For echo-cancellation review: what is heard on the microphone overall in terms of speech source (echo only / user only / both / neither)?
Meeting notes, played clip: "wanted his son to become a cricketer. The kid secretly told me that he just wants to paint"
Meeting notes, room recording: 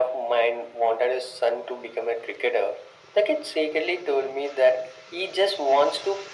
echo only